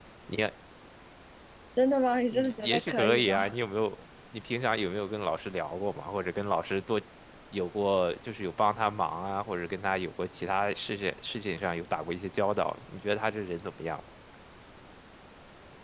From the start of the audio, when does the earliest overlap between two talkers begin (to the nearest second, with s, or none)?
2 s